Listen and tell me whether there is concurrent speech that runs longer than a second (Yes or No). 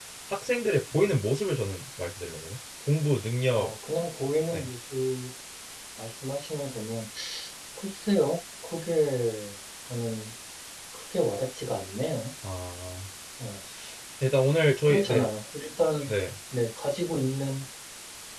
No